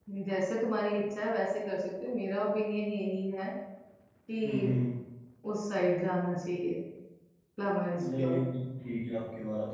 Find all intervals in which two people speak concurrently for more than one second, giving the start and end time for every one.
none

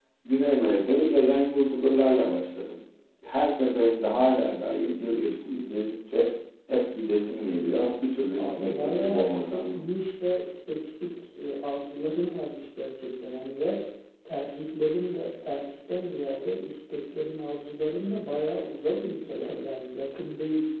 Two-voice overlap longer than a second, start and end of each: 8.3-9.8

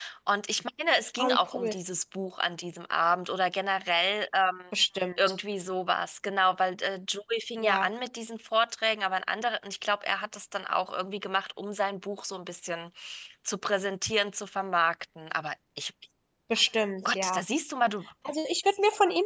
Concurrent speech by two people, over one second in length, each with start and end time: none

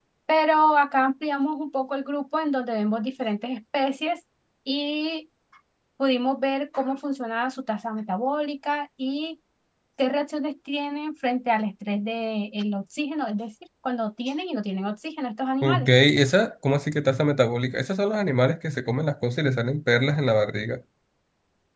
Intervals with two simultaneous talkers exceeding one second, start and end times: none

